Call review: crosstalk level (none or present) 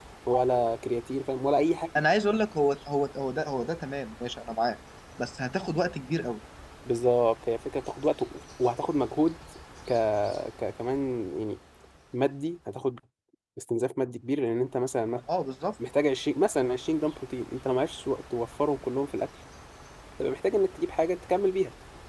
none